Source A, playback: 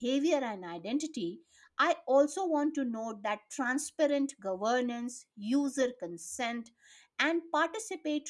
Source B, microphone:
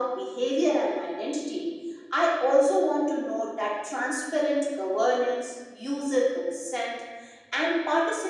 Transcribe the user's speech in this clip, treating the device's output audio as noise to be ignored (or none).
none